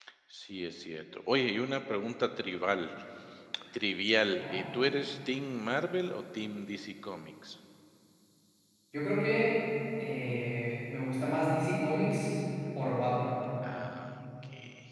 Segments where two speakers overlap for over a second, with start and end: none

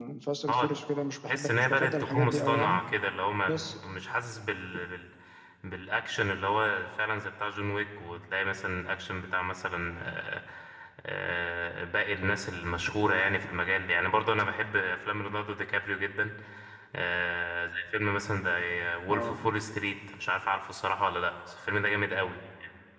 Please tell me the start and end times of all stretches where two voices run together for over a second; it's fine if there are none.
1.3-2.8

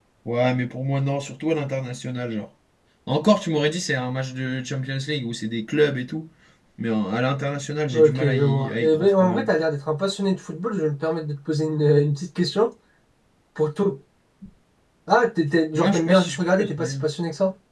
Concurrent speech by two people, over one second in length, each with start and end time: 7.9-9.5, 15.8-17.1

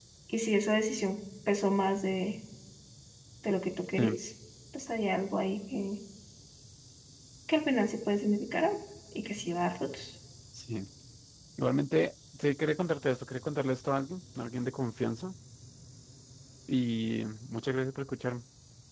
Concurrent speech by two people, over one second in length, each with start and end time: none

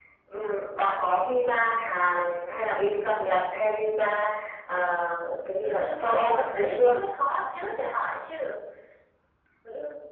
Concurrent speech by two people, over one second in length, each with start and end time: 5.6-6.9

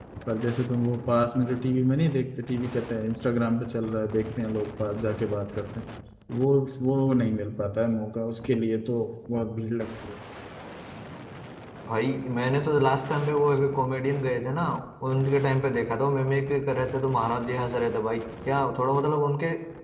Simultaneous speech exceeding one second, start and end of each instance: none

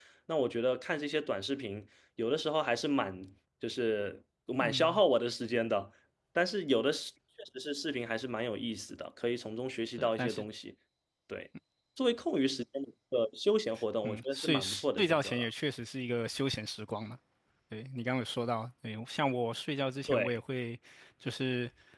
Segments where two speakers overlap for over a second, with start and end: 14.0-15.4

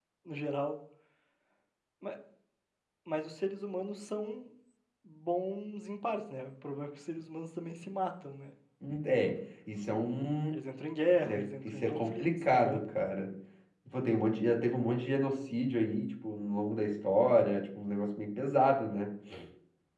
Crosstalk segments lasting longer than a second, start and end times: 11.3-13.0

